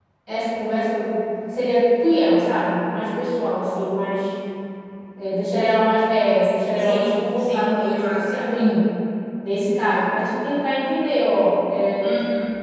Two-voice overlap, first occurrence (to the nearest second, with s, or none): 7 s